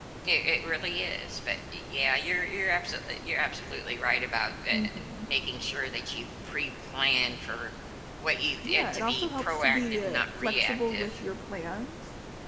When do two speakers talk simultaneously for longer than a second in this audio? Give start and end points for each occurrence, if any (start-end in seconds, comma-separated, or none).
8.6-11.2